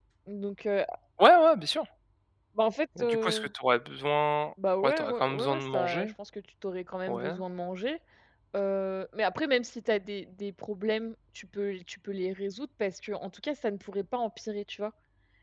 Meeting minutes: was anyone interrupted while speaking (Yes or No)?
Yes